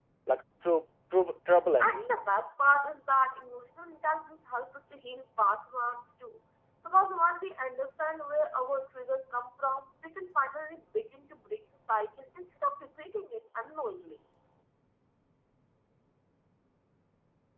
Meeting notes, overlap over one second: none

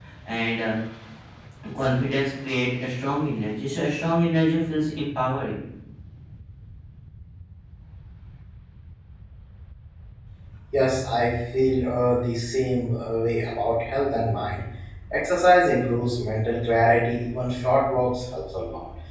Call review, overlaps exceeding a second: none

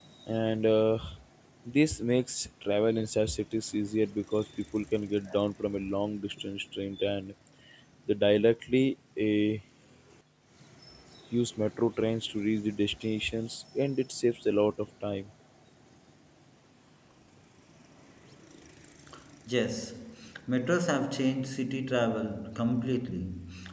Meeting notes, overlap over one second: none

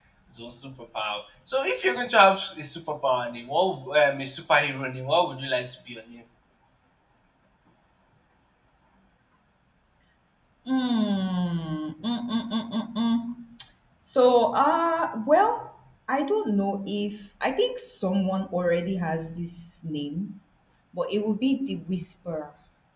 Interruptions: none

